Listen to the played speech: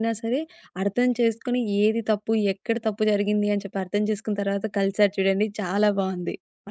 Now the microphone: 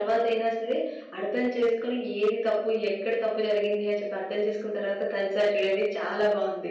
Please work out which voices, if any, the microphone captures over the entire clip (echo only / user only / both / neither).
echo only